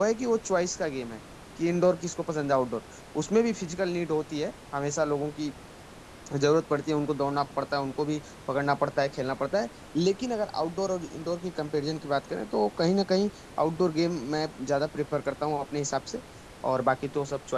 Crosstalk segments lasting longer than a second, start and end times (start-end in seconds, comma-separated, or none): none